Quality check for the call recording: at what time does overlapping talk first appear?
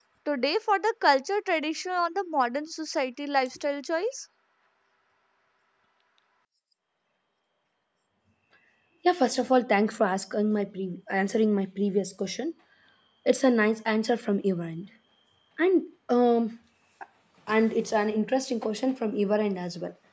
none

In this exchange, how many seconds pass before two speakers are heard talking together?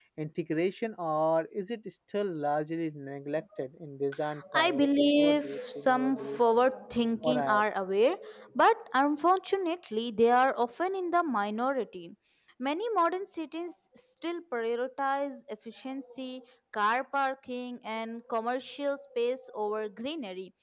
5 s

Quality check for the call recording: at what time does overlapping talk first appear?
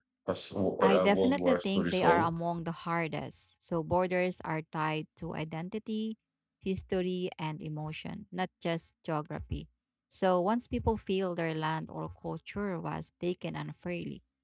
1 s

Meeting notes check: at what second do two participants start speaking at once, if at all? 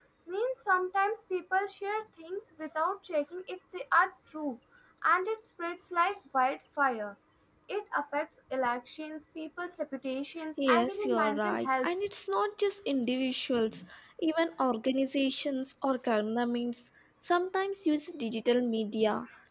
11 s

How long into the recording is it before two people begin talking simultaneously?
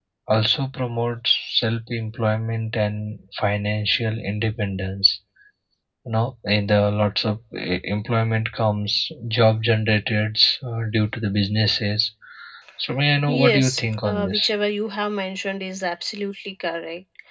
13 s

